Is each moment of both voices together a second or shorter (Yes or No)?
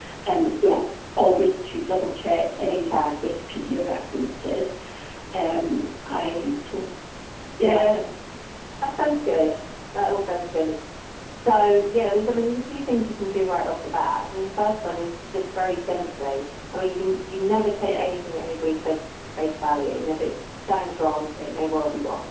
Yes